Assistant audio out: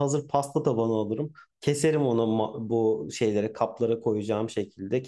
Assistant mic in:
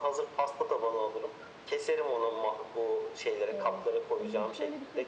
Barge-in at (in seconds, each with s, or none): 3.5 s